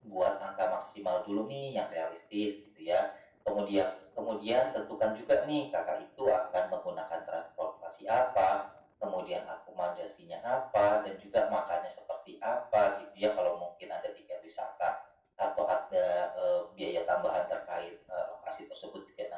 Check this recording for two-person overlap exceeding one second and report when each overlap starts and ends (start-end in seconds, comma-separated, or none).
none